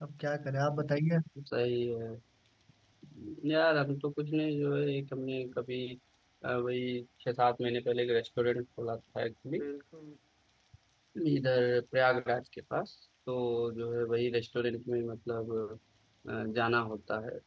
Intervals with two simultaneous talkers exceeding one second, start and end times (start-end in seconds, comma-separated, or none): none